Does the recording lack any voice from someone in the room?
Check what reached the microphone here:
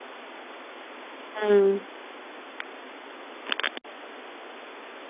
No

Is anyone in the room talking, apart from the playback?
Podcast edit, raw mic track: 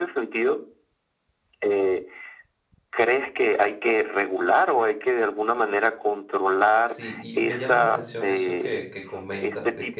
Yes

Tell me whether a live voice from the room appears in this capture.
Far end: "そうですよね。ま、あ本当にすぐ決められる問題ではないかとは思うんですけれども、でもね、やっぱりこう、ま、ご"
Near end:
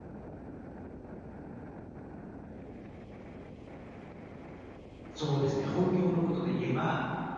Yes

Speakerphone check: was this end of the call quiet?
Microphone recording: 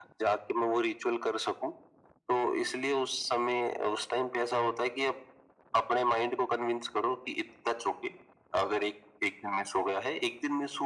Yes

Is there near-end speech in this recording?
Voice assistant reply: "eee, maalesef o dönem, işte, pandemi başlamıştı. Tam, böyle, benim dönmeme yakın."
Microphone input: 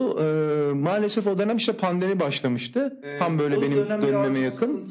Yes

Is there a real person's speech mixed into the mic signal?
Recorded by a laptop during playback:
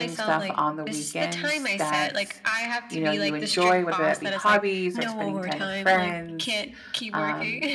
Yes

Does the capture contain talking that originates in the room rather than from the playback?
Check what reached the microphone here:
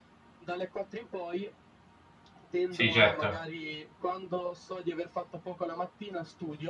Yes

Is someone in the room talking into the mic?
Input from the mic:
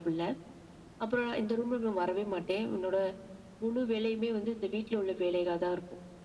No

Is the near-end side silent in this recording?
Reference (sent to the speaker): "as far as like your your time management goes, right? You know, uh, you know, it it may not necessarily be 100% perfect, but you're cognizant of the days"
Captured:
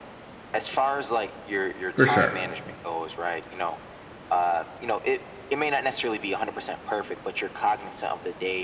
No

